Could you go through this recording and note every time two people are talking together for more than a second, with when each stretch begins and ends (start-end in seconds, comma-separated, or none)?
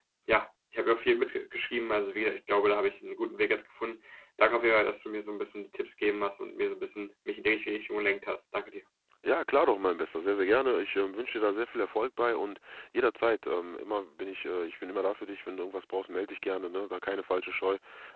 none